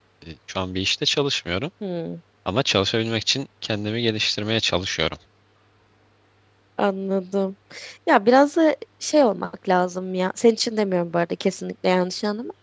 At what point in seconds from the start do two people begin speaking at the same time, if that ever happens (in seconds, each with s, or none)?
none